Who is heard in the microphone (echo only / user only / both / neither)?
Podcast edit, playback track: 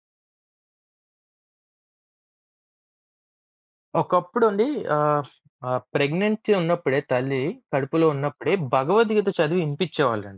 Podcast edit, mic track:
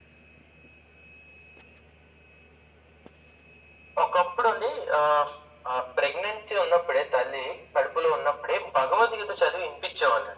echo only